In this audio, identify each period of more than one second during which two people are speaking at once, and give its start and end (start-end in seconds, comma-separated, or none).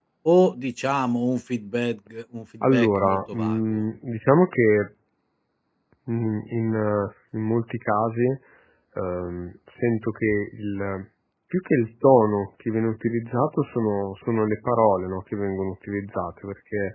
2.6-3.8